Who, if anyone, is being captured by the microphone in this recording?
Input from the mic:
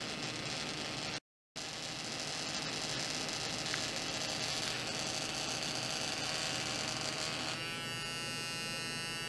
neither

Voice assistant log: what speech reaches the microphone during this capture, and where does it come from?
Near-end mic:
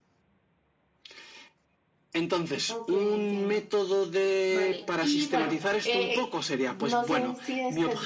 both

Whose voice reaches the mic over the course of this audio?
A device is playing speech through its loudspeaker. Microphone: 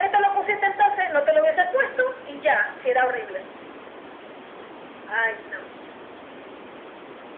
echo only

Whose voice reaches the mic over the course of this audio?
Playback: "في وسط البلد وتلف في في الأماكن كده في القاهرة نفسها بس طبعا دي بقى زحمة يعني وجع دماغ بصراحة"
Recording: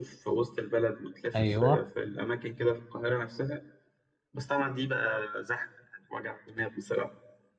both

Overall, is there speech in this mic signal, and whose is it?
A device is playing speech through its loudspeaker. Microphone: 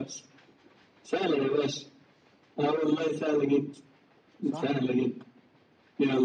both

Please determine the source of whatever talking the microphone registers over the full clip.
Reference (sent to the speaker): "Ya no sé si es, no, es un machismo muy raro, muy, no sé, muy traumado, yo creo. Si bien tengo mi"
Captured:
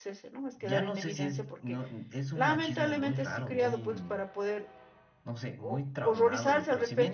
both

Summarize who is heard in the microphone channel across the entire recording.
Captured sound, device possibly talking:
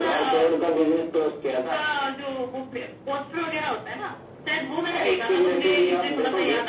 echo only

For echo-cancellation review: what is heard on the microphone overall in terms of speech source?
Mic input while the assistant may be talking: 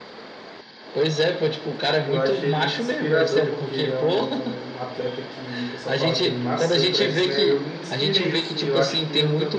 both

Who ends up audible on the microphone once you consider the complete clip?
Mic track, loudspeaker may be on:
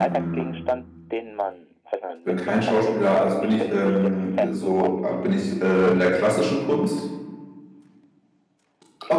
both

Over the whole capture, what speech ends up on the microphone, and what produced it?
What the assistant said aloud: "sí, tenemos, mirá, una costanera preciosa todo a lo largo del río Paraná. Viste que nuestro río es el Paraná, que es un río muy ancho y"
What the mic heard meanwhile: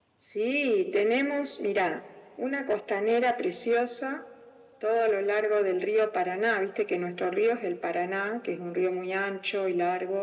echo only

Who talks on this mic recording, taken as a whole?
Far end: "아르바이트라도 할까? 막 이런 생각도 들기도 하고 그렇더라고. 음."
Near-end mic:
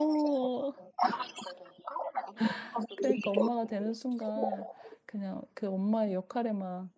both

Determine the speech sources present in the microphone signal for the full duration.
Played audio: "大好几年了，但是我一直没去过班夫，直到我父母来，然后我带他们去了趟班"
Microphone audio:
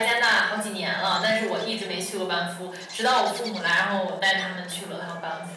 echo only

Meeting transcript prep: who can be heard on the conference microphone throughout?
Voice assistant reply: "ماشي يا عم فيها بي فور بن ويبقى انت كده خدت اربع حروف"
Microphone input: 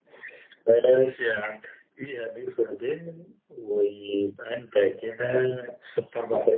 echo only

